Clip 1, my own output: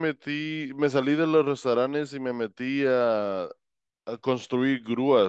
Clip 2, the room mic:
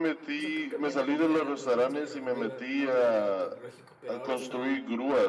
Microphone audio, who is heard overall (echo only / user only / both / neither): both